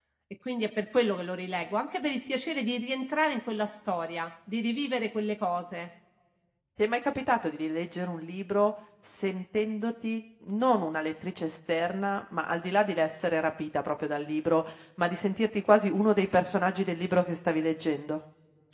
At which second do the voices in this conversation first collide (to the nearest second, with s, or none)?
none